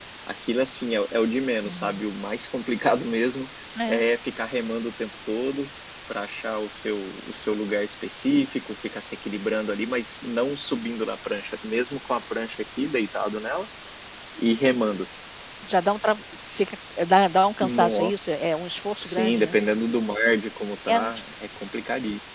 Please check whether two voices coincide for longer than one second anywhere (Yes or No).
No